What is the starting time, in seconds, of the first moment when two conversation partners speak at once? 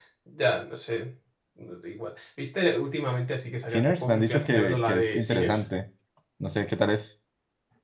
3.7 s

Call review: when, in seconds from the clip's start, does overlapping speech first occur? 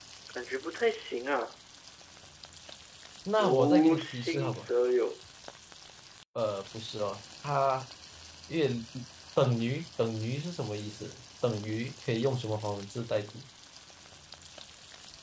3.4 s

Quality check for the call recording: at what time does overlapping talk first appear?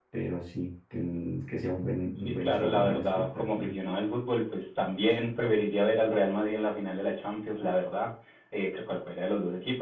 2.2 s

